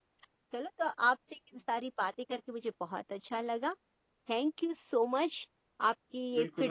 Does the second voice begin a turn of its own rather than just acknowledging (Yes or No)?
Yes